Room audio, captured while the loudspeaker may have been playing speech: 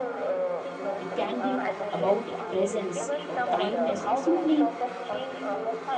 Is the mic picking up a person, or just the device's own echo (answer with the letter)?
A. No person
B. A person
B